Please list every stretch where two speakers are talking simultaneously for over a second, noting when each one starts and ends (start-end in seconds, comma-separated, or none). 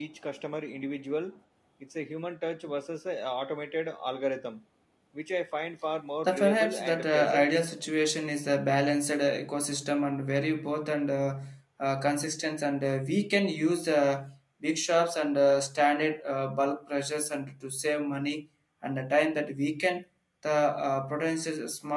6.2-7.5